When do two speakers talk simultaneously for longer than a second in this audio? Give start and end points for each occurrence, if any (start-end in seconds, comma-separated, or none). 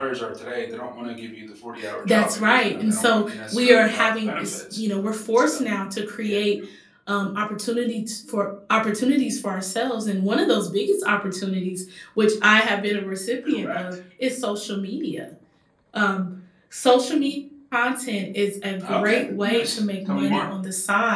2.0-4.8, 18.8-20.4